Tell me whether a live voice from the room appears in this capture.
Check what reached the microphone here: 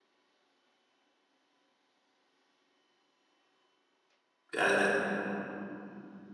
Yes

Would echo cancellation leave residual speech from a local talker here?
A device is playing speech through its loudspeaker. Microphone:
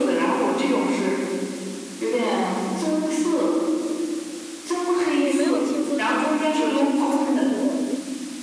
Yes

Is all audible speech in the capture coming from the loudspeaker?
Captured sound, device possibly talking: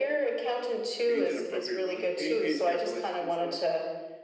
No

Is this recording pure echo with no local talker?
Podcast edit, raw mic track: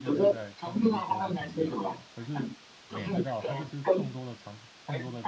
No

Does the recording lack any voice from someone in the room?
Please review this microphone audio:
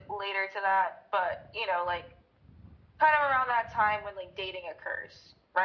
Yes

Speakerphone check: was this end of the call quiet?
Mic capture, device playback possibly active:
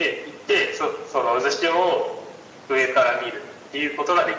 Yes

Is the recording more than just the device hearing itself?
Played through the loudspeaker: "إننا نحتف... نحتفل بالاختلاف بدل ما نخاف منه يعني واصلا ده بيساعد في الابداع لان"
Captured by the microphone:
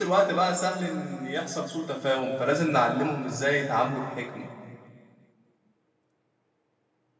Yes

